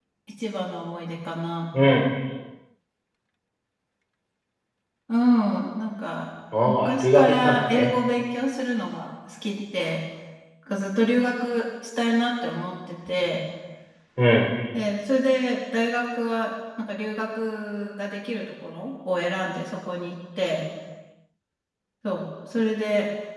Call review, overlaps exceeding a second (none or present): present